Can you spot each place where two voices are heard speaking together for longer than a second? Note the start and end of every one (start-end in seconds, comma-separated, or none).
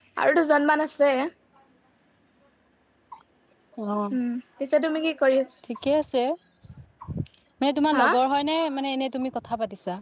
none